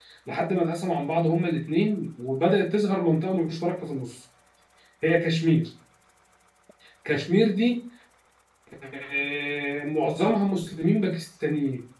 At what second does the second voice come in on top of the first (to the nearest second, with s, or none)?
none